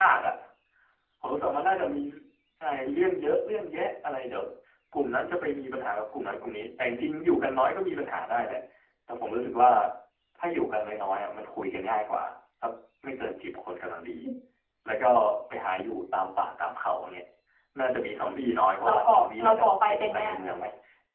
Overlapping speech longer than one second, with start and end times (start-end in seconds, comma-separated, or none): 18.8-20.4